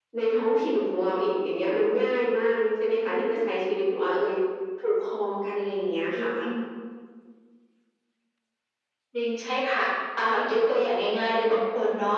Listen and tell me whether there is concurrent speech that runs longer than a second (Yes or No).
No